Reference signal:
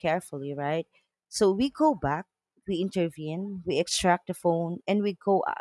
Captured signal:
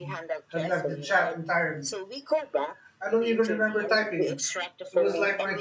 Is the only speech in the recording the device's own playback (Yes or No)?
No